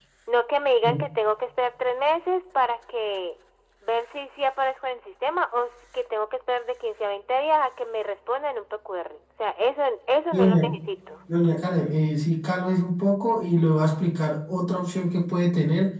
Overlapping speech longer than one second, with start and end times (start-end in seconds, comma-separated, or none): none